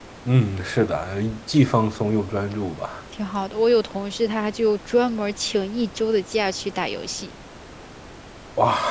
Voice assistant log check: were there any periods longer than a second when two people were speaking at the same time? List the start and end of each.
none

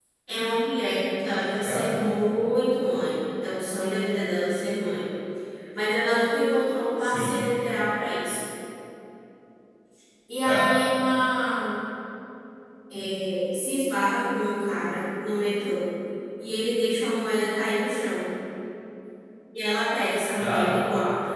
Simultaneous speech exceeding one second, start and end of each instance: none

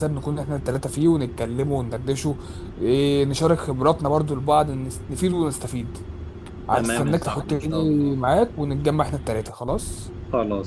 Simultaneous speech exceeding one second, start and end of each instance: 6.7-8.2

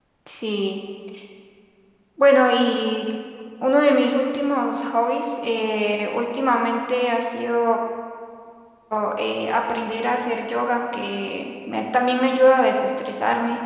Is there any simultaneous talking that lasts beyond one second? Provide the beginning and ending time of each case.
none

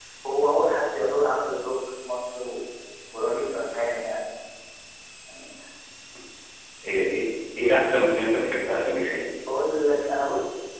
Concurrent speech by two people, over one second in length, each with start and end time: none

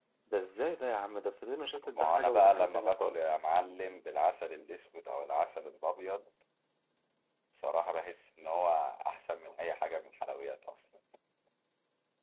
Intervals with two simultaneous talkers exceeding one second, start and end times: 1.9-3.3

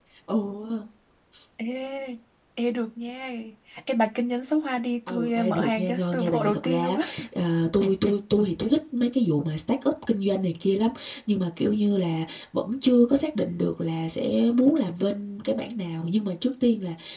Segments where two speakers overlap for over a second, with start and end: 5.1-7.1

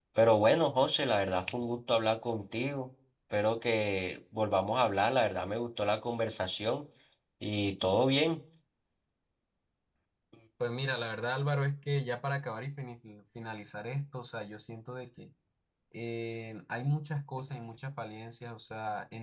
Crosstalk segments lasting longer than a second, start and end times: none

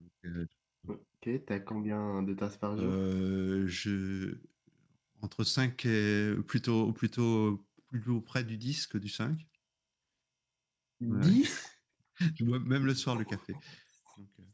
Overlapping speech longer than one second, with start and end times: none

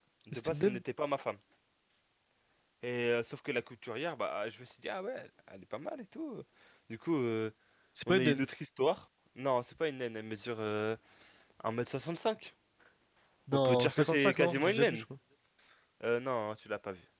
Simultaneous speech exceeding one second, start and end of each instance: 13.7-15.0

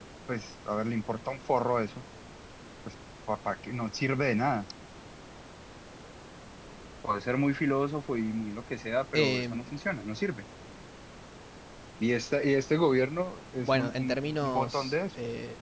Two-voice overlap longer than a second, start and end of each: 13.6-15.0

